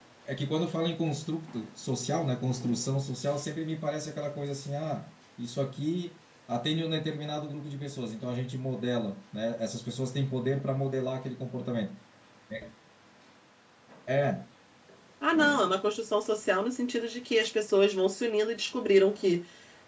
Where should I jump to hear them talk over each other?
none

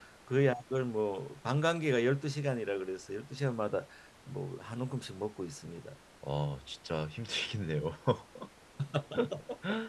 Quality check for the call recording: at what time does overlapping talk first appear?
none

